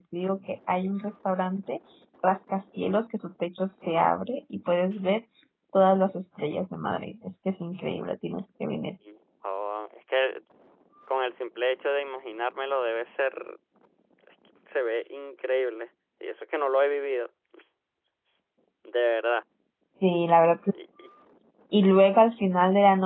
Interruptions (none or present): none